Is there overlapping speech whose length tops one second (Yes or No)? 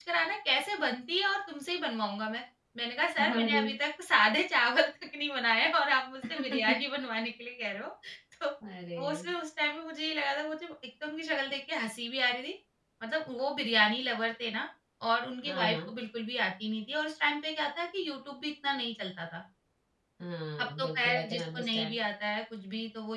Yes